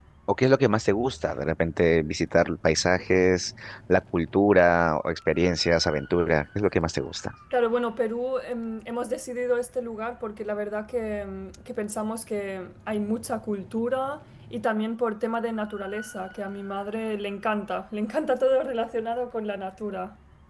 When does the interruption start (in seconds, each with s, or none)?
none